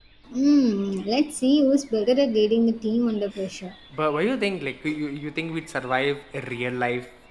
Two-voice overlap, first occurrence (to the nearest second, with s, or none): none